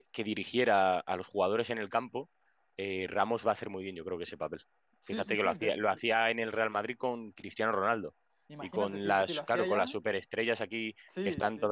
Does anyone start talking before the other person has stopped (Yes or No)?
Yes